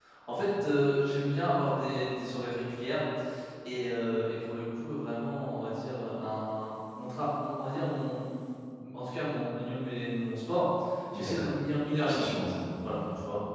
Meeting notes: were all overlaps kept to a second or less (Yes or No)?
Yes